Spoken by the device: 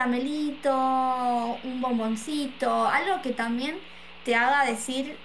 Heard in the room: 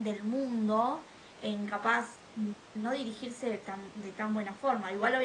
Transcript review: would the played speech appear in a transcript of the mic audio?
No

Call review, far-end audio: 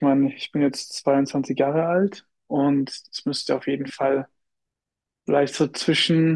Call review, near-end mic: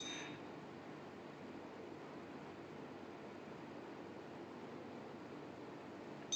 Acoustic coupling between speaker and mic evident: No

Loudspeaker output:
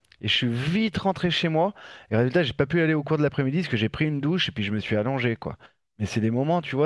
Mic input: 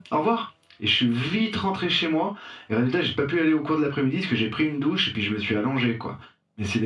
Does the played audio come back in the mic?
Yes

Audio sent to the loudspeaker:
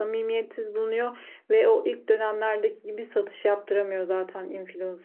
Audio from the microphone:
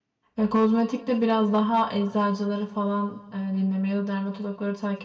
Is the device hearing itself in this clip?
No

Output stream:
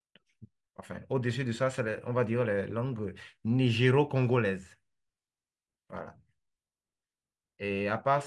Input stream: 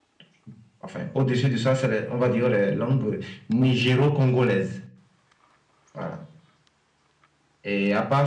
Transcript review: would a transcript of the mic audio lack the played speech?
No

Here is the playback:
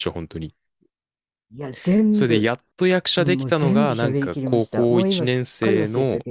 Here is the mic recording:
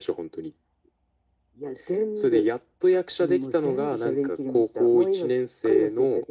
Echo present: Yes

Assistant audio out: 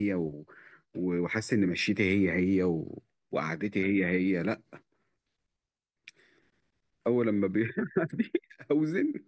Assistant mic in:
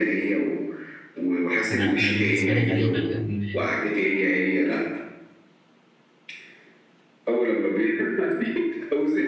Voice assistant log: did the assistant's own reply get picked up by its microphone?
Yes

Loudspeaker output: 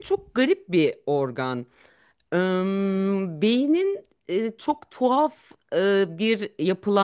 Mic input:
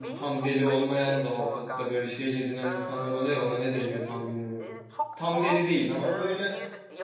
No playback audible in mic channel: No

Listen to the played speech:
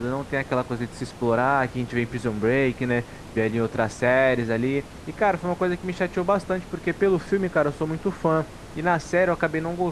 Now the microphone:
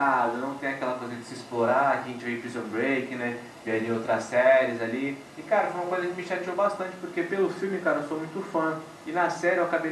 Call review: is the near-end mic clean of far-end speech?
No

